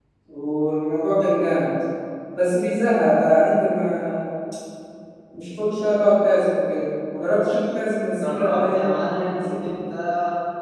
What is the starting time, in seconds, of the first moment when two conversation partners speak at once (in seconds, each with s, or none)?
8.1 s